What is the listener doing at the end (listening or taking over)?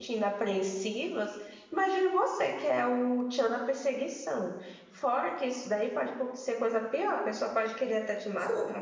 taking over